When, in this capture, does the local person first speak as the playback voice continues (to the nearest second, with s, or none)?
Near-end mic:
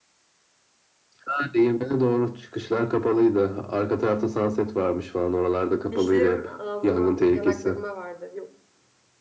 6 s